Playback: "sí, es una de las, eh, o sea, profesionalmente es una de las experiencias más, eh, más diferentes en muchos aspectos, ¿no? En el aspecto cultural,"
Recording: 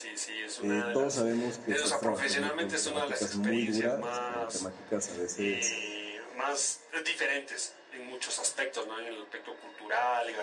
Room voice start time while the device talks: 0.6 s

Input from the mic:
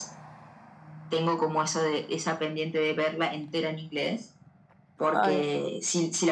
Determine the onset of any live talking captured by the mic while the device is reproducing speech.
5.1 s

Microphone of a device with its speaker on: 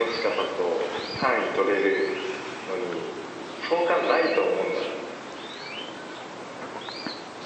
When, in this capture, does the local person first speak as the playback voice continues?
none

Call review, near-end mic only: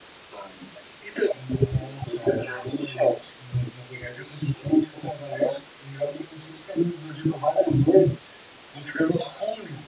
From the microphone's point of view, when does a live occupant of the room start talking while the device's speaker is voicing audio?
none

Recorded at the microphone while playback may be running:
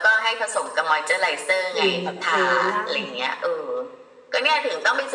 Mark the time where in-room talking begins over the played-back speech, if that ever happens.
1.7 s

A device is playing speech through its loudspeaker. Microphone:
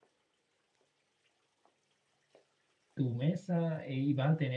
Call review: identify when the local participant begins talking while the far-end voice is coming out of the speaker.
2.9 s

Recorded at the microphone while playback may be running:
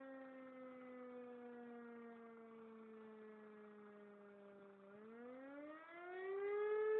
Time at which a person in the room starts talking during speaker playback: none

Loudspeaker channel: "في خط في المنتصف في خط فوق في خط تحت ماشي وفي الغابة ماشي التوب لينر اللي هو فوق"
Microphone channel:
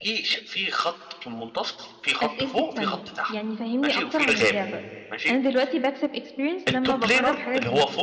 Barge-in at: 2.2 s

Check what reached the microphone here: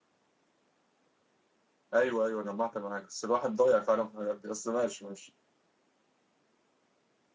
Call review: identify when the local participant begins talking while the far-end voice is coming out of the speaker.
1.9 s

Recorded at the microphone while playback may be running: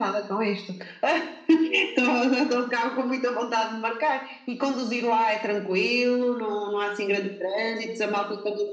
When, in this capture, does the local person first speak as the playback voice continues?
none

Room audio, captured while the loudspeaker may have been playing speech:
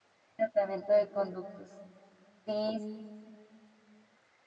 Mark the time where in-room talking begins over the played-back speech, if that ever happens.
0.4 s

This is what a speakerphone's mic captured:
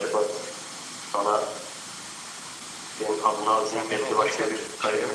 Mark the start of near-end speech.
3.6 s

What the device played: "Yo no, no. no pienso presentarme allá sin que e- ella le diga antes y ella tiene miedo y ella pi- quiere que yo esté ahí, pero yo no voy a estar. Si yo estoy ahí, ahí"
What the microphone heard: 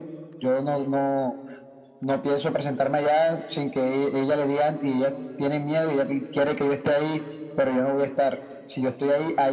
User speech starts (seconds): none

